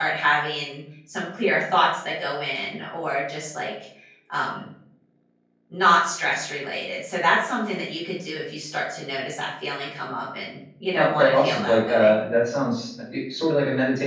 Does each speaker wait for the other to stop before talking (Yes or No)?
No